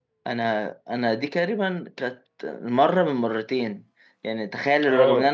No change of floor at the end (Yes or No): Yes